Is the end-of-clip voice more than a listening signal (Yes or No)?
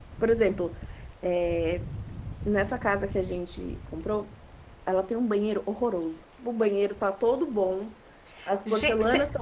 No